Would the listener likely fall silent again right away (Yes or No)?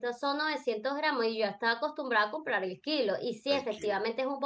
Yes